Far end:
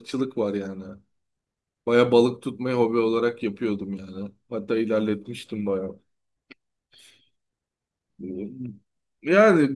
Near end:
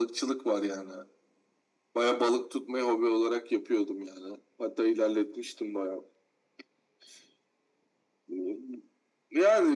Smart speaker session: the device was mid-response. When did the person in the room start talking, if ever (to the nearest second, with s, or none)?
none